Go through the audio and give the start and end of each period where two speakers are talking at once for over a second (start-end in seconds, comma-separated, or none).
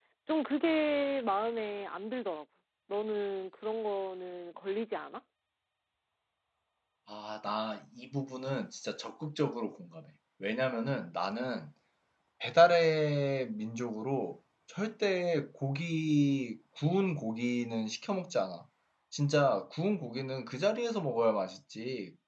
none